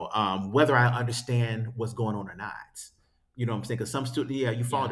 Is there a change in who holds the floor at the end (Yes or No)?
No